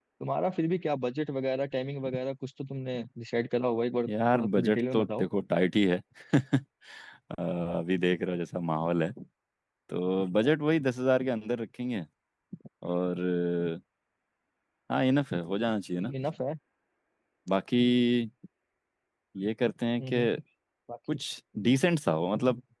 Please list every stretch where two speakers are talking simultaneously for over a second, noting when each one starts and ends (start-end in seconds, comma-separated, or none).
4.1-5.3